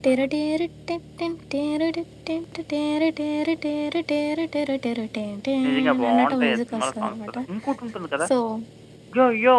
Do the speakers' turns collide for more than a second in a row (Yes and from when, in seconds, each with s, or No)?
Yes, from 5.6 s